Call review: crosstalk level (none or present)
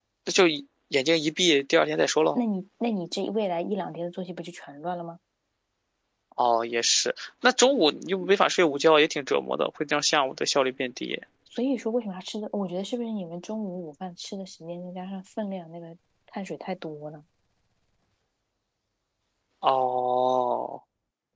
none